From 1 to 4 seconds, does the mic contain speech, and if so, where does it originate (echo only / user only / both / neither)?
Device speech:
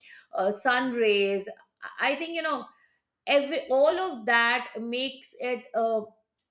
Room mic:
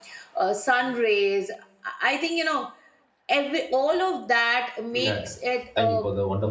echo only